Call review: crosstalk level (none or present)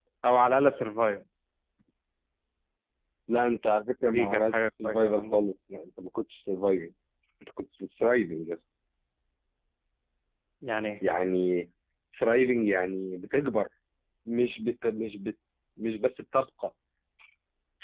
present